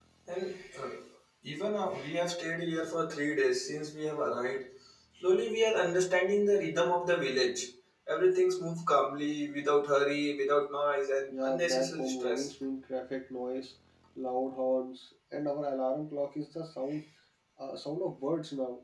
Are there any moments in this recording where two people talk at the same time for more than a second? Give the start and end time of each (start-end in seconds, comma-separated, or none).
11.3-12.5